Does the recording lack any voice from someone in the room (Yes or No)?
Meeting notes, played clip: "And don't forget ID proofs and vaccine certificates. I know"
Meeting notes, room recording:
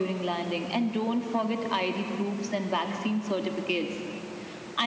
Yes